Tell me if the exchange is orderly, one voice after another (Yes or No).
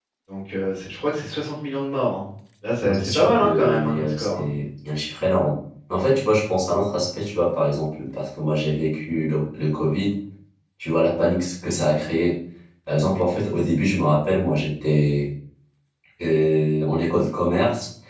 No